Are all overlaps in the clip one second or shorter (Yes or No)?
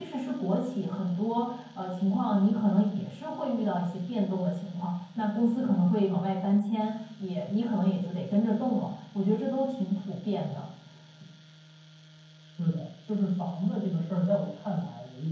Yes